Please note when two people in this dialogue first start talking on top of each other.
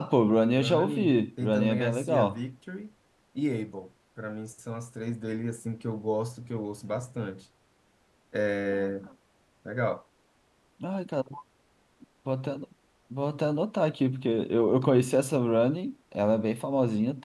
0.5 s

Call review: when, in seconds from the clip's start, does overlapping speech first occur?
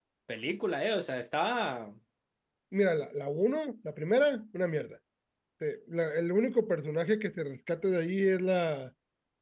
none

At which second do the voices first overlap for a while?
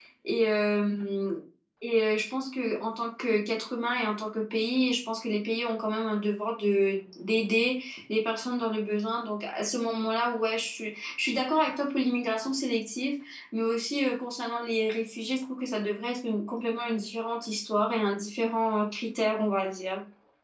none

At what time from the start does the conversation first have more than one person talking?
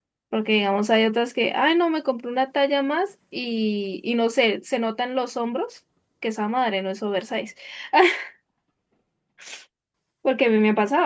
none

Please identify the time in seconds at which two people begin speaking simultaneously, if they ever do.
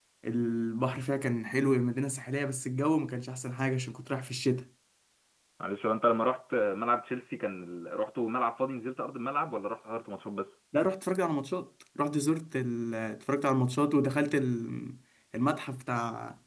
none

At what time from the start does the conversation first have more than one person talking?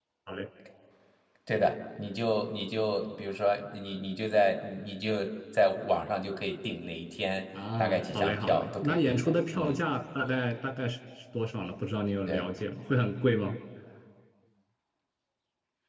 7.8 s

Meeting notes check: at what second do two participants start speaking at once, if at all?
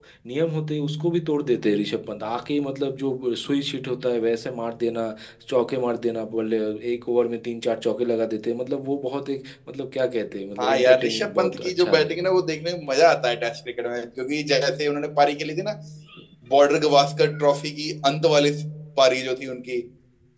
10.6 s

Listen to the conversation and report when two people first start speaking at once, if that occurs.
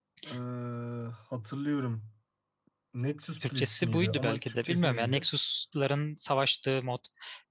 3.5 s

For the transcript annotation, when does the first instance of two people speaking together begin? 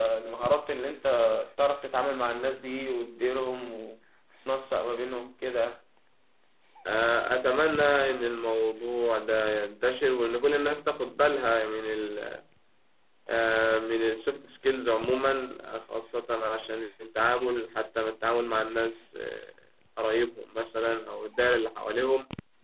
none

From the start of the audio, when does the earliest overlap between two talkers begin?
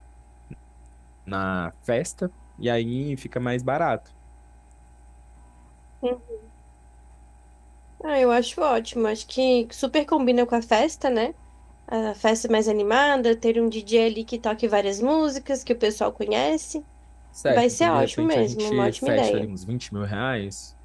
17.5 s

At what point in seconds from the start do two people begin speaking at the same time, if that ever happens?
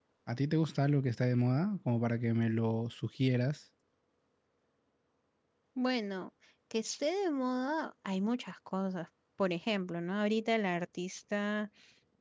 none

